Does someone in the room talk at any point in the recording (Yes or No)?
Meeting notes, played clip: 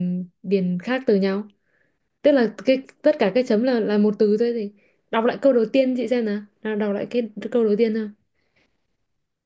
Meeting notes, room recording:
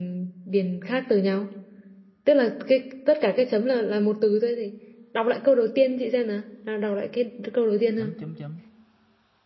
Yes